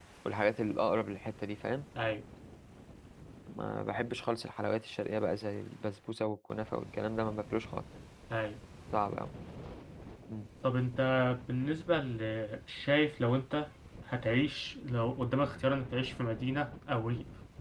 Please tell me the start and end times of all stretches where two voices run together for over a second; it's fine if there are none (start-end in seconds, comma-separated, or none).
none